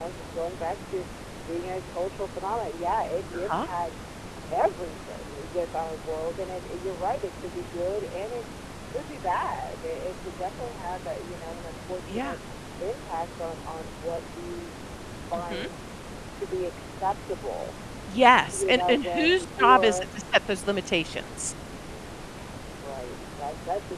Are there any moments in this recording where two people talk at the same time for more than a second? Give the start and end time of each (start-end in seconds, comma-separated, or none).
18.5-20.1